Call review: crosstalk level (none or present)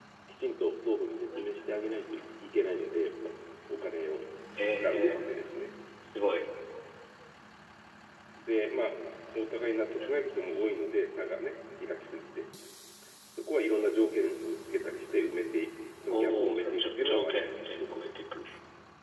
present